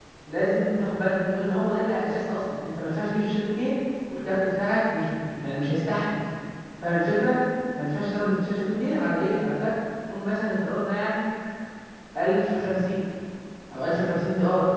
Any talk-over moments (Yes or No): No